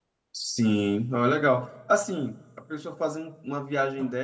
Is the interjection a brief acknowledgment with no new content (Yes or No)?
Yes